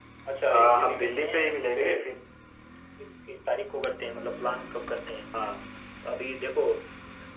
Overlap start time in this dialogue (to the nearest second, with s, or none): 1 s